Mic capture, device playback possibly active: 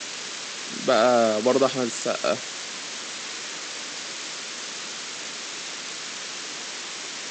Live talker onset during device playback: 0.7 s

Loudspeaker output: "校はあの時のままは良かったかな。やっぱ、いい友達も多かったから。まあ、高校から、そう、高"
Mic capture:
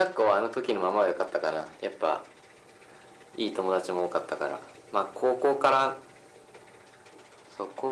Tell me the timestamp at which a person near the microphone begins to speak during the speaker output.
none

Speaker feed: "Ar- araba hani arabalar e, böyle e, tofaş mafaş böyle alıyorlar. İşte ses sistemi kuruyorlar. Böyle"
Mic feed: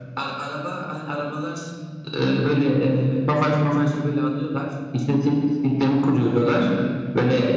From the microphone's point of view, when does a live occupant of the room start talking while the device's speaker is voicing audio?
none

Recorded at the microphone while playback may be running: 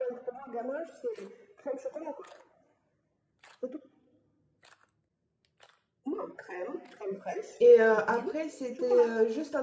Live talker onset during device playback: 7.6 s

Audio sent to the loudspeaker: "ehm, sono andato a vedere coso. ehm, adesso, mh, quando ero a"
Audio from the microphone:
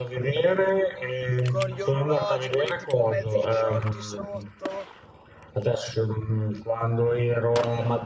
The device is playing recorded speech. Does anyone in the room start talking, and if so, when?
1.4 s

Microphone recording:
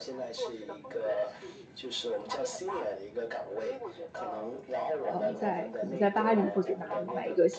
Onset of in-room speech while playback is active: 5.1 s

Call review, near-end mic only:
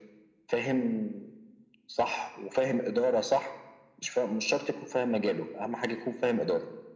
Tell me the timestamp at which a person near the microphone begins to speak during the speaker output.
none

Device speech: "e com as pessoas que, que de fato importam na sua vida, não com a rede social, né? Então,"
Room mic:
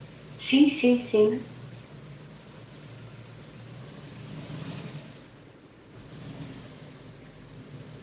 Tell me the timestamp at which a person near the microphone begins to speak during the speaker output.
0.4 s

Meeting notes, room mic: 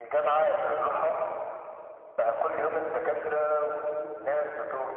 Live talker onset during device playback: none

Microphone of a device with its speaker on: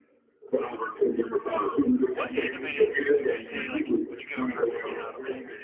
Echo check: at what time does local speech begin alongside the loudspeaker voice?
2.1 s

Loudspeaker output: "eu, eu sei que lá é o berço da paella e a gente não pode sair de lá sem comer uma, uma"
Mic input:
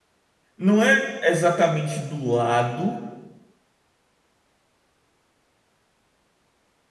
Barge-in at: 0.6 s

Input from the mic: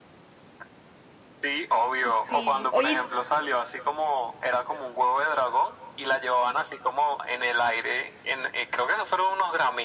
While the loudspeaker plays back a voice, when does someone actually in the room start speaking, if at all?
2.1 s

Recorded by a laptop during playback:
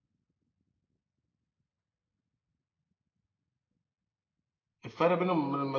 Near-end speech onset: 4.8 s

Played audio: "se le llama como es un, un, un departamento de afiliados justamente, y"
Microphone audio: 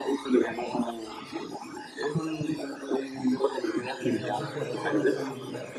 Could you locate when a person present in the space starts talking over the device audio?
4.0 s

